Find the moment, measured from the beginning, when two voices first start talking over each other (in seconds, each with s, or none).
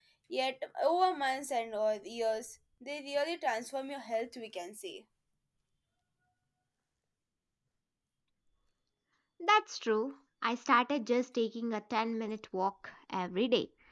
none